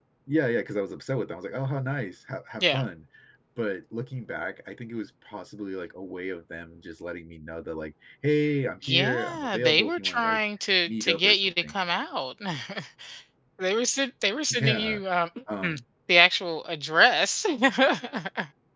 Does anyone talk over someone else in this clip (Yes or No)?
Yes